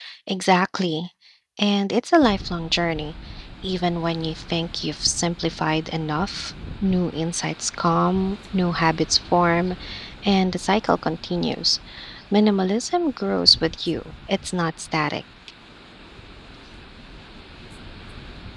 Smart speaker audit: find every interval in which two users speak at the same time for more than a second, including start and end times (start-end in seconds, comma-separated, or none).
none